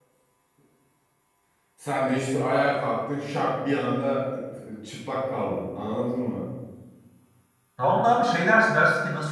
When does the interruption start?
none

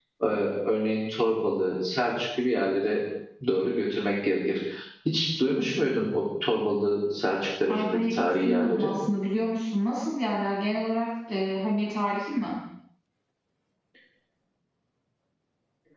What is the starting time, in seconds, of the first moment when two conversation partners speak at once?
8 s

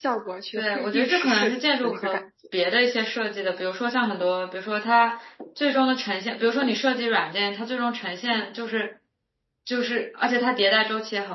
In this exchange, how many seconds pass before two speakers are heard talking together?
1 s

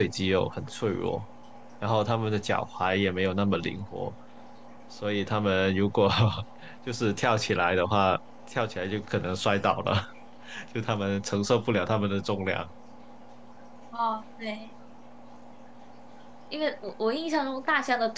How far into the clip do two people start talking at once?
none

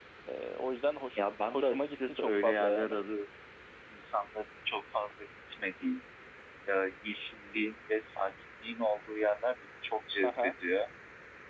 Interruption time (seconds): 1 s

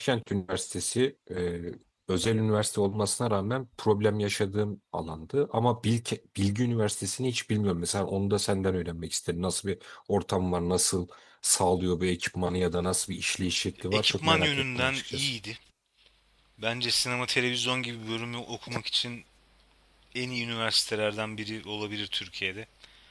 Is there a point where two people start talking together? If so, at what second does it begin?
14 s

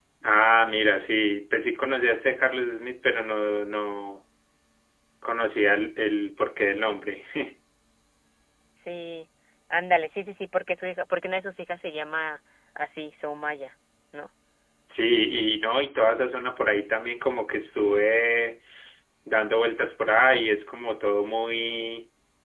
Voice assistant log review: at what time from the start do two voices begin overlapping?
none

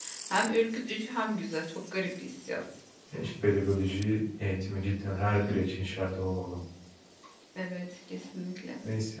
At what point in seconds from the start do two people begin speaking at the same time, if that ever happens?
none

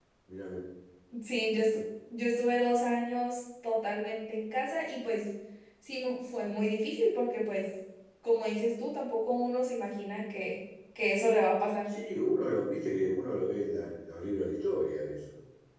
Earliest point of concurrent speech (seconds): none

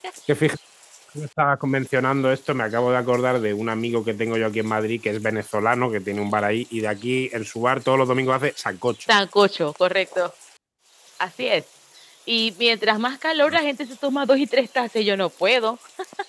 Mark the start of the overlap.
none

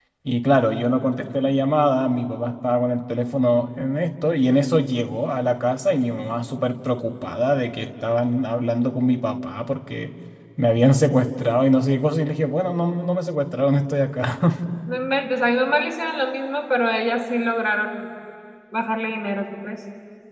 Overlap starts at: none

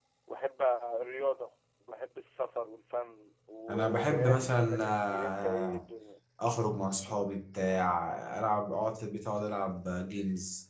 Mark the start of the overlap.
4 s

